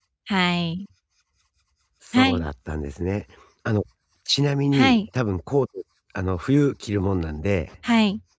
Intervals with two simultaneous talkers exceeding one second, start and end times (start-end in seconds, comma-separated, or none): none